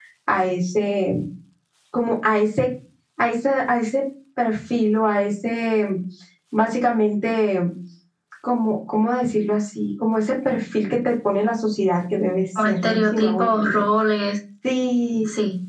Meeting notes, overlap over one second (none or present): present